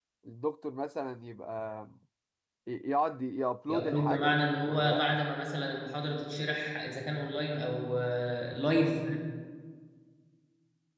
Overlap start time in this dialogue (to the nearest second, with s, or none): 4 s